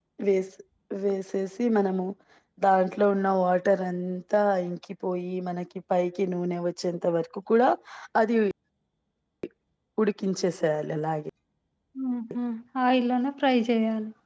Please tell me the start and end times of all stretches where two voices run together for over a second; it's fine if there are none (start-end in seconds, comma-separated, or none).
none